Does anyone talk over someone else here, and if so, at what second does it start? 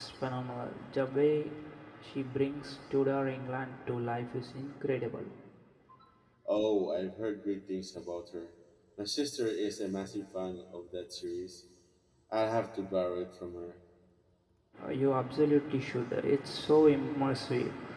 none

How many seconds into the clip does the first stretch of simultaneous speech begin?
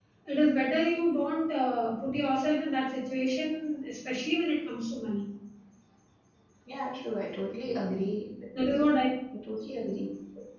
none

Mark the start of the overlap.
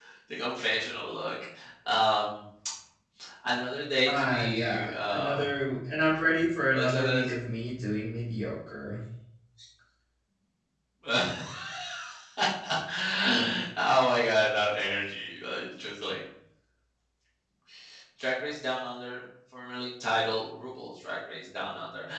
4.0 s

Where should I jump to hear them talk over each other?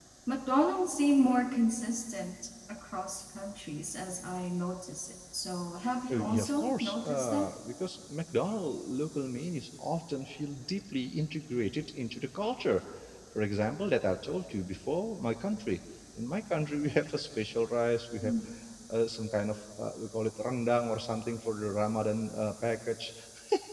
6.1 s

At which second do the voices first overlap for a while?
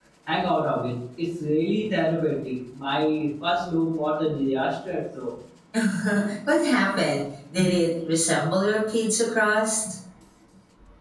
none

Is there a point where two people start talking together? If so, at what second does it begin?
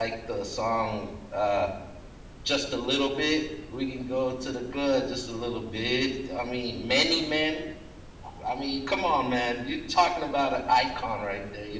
none

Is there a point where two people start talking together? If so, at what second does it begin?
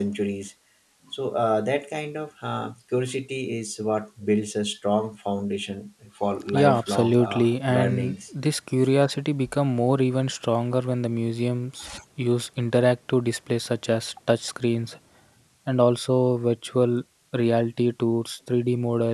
6.5 s

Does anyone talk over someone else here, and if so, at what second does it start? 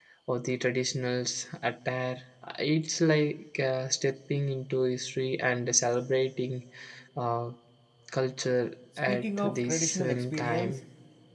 9.1 s

